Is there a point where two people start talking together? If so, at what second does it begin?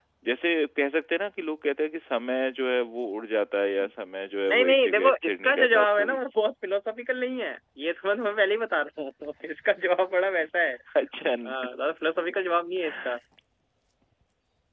4.5 s

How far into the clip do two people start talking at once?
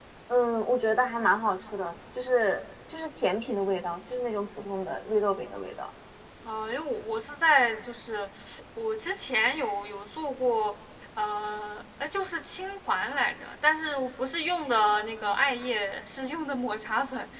none

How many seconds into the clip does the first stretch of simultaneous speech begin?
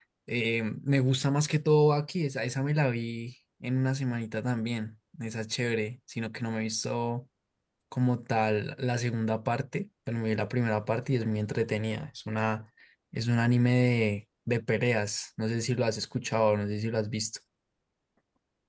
none

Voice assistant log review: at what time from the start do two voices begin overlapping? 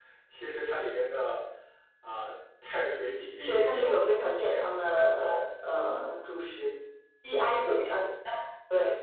3.4 s

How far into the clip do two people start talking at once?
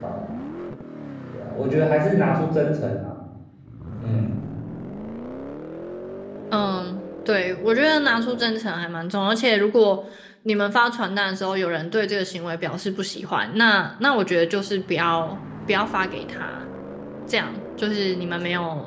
none

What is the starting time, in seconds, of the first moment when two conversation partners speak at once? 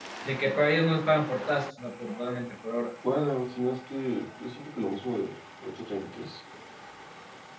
none

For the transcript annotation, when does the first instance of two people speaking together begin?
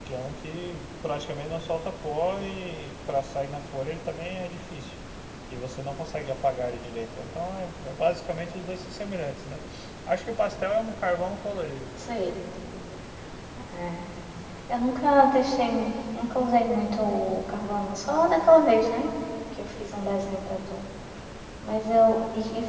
none

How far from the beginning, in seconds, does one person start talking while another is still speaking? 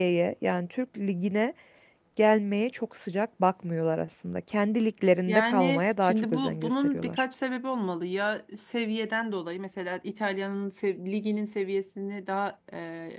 5.3 s

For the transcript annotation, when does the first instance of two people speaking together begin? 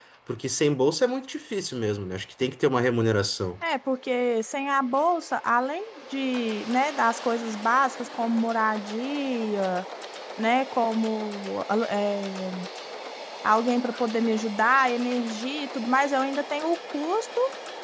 none

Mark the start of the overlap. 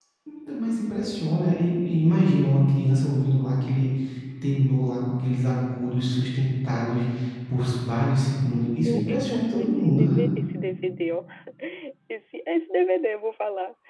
8.8 s

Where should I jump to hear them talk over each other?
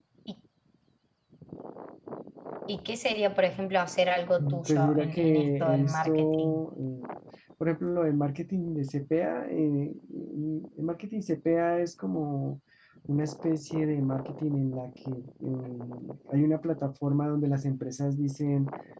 4.4 s

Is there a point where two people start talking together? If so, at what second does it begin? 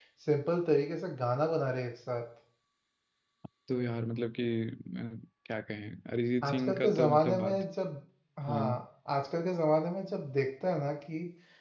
6.4 s

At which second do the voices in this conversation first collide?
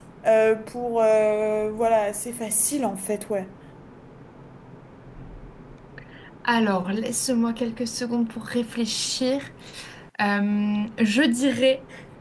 none

